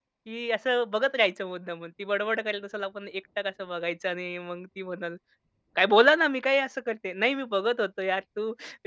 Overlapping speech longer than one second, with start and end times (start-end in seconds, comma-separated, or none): none